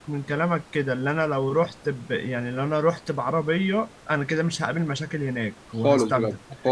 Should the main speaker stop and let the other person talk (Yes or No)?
Yes